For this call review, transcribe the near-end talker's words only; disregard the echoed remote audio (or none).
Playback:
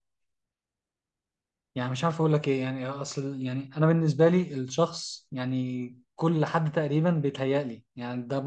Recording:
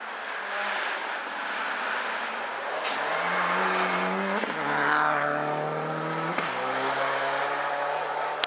none